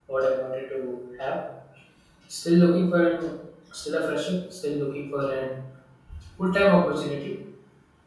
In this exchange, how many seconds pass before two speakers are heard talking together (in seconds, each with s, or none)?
none